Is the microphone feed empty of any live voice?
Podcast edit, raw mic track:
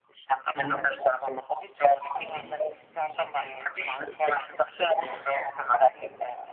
No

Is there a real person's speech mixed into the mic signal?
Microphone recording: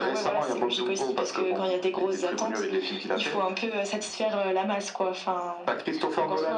No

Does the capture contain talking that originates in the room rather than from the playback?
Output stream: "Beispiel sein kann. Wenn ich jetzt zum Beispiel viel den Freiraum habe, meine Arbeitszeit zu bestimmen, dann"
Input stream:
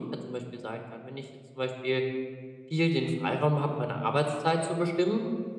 No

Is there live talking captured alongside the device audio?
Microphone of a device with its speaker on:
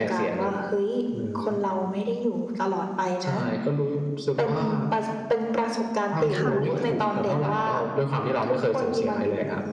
Yes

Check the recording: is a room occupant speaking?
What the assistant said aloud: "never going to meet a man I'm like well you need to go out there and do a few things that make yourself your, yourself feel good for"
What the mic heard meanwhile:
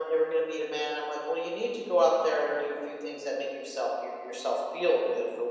No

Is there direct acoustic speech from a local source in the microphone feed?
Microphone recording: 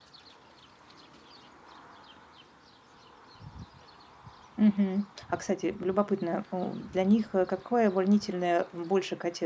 Yes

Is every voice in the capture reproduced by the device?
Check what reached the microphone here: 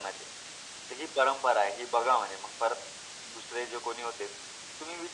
Yes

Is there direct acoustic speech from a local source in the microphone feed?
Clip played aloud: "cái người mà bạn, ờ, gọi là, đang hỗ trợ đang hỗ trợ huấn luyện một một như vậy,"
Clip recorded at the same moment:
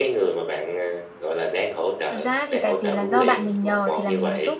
Yes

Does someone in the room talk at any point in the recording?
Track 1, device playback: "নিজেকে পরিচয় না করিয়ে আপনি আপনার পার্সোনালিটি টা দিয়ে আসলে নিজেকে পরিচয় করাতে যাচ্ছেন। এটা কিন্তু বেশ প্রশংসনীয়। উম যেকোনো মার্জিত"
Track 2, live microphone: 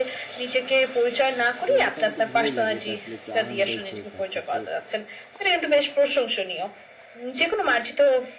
Yes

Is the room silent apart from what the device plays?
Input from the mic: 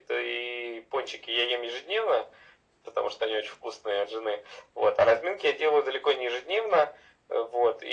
Yes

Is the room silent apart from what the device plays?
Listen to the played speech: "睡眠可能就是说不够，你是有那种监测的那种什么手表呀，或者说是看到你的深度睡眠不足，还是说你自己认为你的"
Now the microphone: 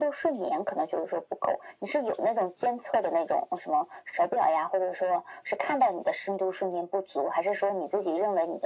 Yes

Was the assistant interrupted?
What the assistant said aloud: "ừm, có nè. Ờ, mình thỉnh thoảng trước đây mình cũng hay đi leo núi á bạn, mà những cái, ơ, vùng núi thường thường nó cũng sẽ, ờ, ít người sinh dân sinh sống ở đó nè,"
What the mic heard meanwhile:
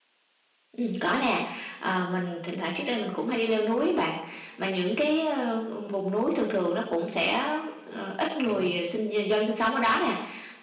Yes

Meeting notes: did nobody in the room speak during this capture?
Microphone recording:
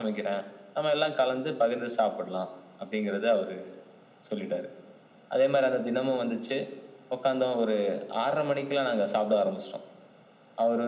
Yes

